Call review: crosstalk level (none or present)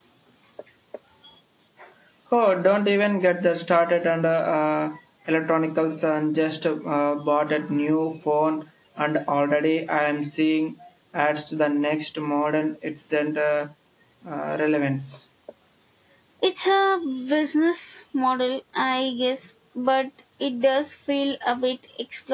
none